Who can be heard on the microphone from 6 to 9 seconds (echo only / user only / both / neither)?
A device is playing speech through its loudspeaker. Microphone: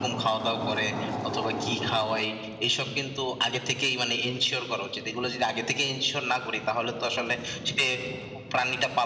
echo only